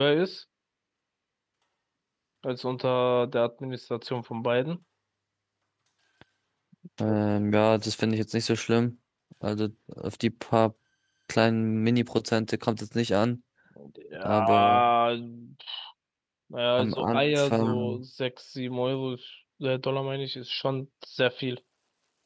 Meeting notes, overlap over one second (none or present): present